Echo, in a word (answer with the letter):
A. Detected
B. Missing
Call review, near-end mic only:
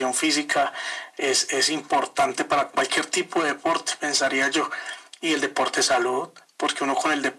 A